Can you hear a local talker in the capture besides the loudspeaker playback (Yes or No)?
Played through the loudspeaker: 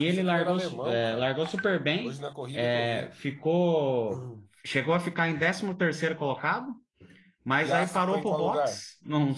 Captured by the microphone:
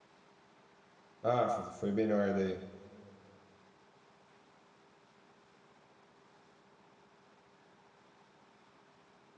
Yes